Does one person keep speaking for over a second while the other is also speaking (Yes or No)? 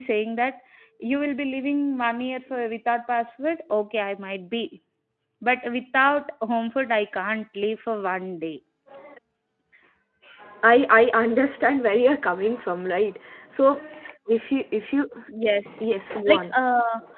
No